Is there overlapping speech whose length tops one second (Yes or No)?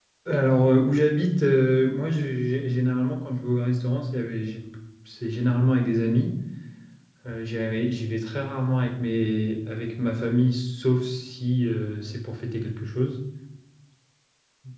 No